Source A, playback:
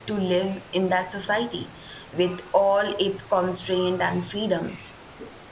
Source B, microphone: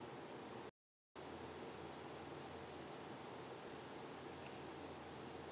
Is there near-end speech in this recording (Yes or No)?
No